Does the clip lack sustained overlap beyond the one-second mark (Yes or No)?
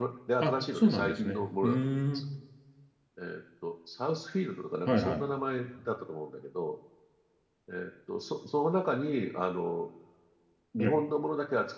No